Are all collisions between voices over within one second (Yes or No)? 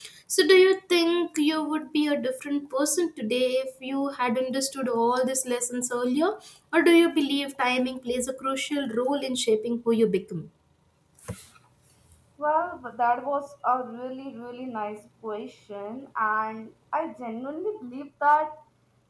Yes